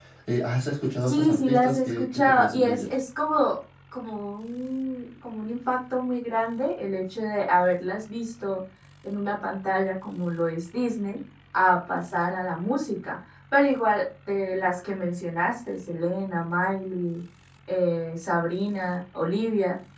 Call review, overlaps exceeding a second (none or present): present